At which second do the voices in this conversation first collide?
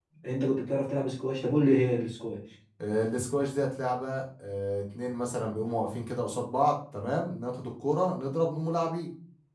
none

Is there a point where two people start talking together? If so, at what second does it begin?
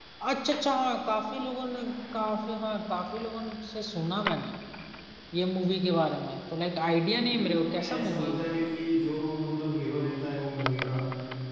7.3 s

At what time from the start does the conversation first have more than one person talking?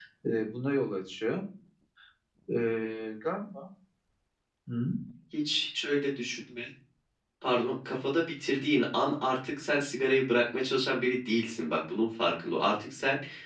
none

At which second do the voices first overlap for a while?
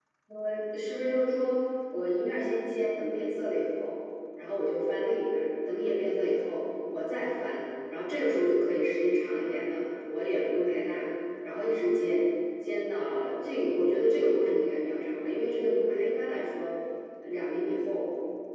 none

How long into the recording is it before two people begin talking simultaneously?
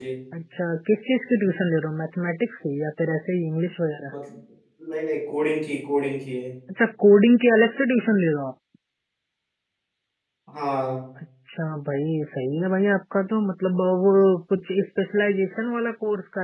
none

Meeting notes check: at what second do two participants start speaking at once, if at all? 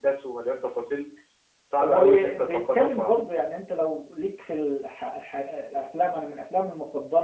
1.8 s

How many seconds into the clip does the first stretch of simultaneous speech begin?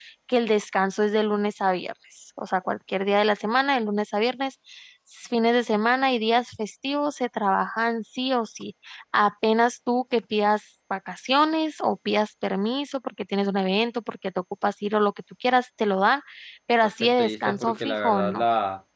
16.8 s

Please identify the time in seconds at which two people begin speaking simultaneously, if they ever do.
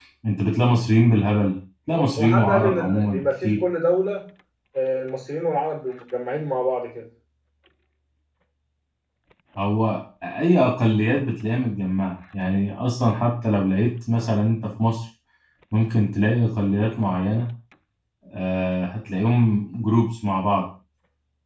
1.9 s

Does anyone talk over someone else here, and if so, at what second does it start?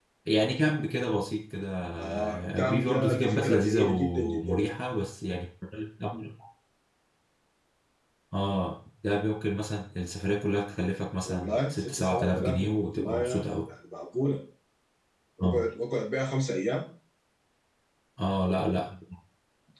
2.0 s

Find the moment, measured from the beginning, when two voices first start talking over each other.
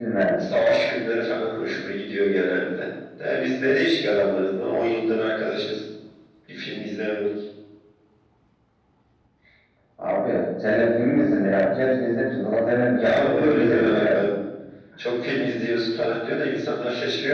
13.0 s

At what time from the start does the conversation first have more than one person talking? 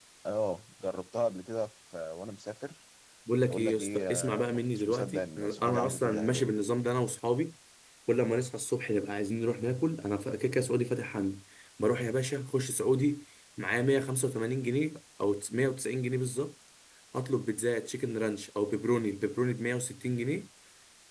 3.5 s

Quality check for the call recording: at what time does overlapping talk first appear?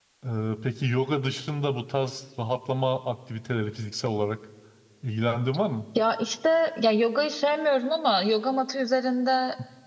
none

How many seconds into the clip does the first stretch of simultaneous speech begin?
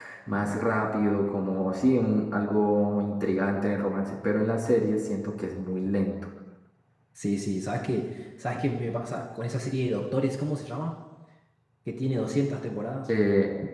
none

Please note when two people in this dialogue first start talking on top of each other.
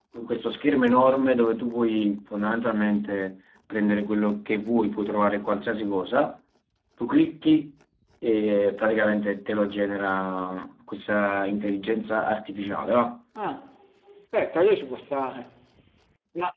none

